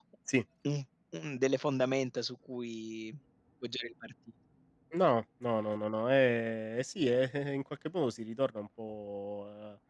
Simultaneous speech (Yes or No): No